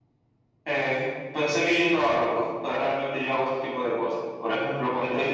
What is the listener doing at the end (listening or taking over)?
listening